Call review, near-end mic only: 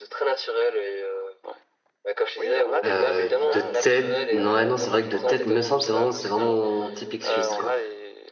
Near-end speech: present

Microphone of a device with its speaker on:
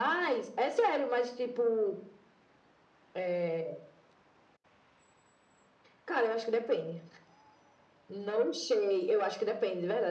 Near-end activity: none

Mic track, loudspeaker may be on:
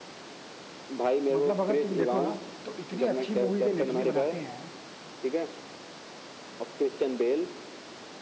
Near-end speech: present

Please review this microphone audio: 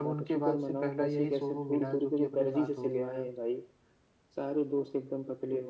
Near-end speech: present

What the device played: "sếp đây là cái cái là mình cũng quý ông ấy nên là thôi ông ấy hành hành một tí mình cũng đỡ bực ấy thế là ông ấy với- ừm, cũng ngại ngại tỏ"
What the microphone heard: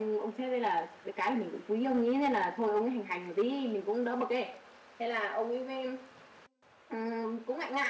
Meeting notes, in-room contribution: none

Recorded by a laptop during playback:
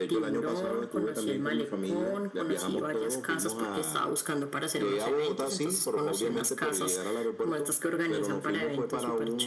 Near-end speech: none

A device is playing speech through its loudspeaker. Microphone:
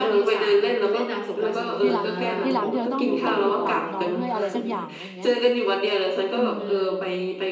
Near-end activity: present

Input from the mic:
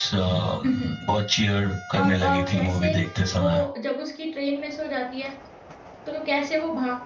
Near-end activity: present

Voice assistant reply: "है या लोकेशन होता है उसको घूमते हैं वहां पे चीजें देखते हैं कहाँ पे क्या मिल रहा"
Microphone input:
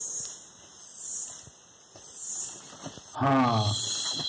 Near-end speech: present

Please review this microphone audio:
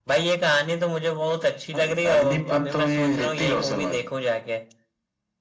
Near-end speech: none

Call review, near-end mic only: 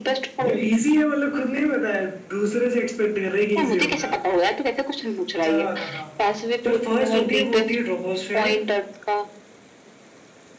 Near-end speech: present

